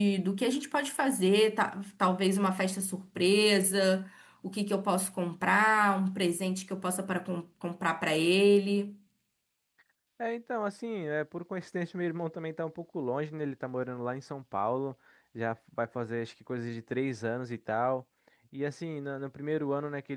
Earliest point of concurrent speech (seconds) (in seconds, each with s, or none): none